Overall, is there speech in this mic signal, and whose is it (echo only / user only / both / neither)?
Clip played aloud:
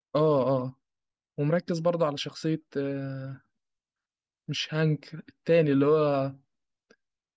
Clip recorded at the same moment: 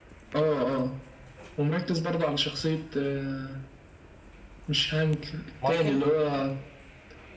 both